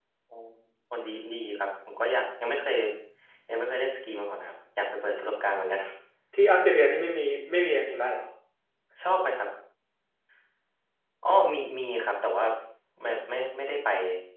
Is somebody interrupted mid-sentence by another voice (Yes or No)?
No